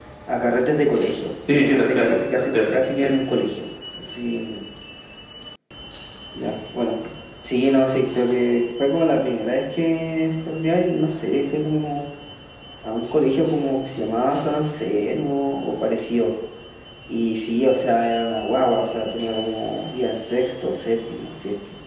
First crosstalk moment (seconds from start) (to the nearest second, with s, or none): 1 s